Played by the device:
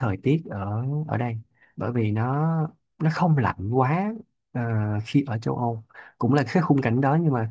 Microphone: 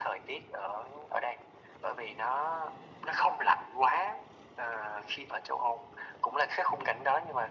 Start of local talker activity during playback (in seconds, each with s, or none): none